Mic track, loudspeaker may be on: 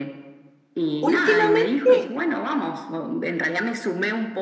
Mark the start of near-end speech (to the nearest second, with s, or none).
1 s